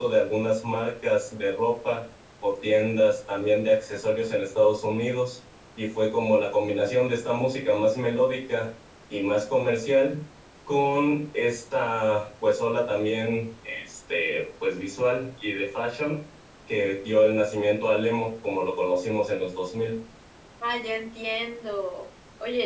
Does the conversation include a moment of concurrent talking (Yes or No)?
No